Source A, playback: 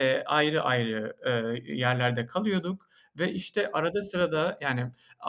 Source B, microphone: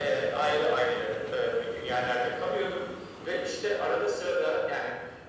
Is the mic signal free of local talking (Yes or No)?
Yes